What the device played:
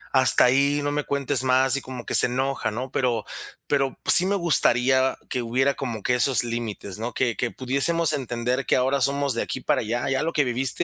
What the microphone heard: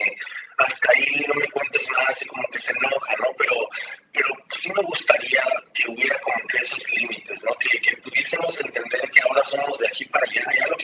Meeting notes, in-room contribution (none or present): none